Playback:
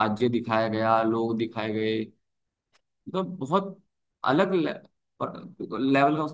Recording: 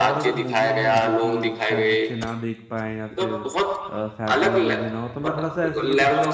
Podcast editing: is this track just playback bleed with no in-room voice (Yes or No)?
No